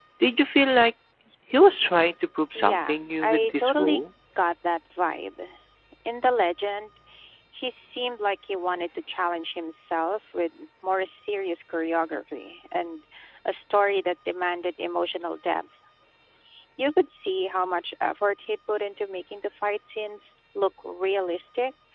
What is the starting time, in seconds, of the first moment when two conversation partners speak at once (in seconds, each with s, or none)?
2.5 s